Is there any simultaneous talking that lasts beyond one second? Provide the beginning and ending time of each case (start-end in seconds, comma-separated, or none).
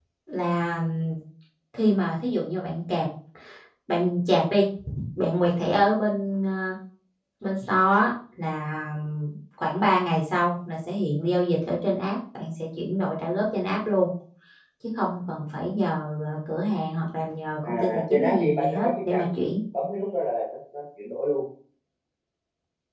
17.6-19.5